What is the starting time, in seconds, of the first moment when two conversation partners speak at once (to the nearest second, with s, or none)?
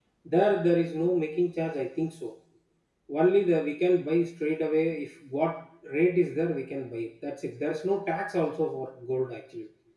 none